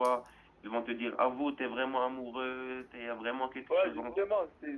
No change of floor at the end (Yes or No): No